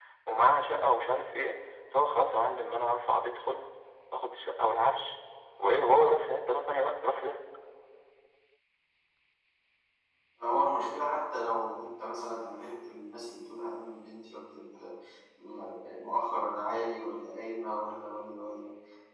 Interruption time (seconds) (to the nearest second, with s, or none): none